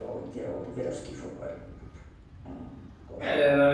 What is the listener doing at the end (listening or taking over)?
taking over